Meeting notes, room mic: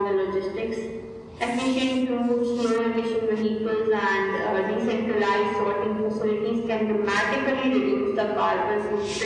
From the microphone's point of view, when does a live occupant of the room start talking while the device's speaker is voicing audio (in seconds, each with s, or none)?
none